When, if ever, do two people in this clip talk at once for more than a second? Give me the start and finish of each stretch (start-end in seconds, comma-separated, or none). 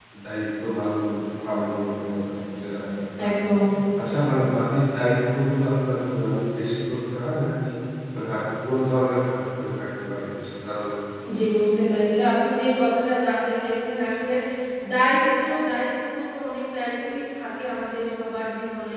none